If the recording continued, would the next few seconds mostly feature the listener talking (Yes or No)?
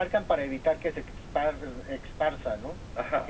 Yes